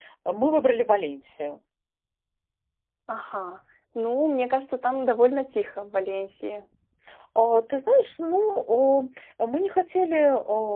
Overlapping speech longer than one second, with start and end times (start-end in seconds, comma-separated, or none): none